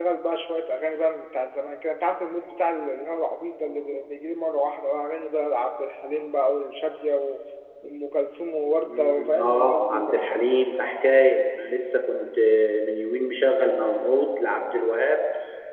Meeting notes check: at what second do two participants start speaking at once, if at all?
8.8 s

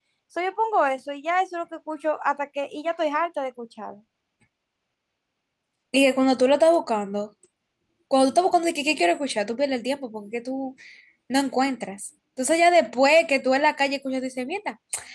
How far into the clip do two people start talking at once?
none

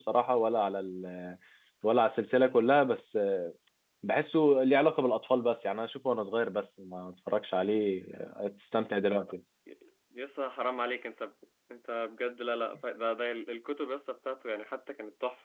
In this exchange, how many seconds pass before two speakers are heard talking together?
none

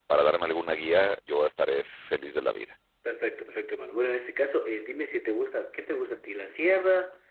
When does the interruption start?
none

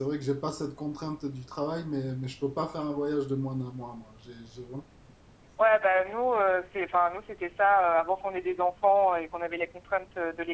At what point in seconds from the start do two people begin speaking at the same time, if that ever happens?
none

